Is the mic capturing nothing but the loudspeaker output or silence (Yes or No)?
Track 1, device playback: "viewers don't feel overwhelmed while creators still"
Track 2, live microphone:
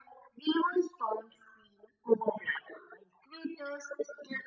Yes